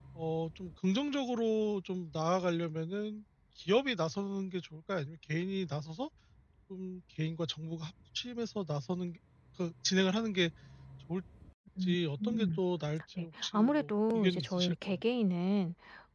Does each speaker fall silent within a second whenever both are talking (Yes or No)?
No